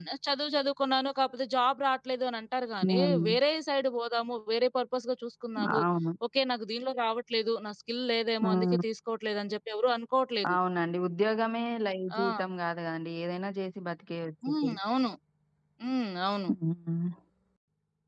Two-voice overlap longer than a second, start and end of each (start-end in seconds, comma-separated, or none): none